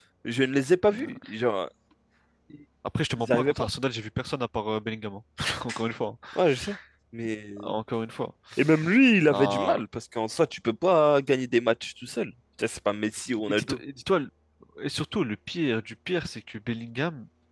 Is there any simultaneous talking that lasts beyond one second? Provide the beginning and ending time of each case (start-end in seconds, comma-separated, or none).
none